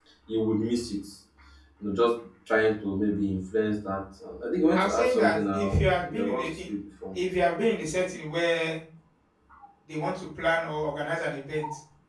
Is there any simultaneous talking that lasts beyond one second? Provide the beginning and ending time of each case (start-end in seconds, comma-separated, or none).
4.7-6.4